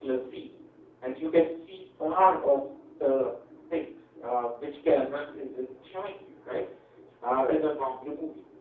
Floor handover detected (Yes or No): No